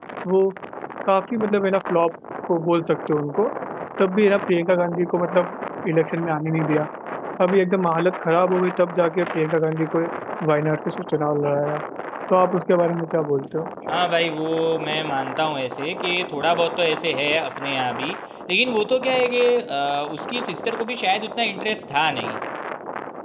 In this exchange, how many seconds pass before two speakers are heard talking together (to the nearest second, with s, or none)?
none